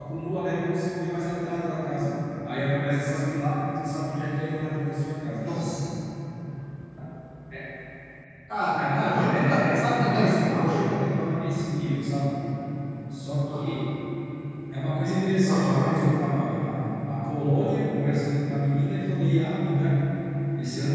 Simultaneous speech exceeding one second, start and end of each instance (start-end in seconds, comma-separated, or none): 8.9-10.8